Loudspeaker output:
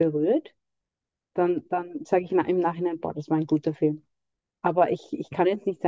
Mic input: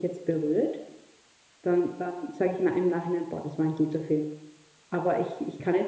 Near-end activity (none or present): none